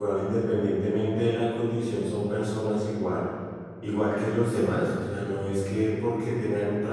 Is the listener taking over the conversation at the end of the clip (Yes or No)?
No